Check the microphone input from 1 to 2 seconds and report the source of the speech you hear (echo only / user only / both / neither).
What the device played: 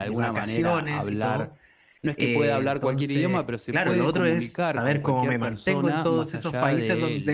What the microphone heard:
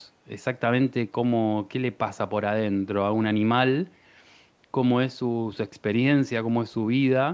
user only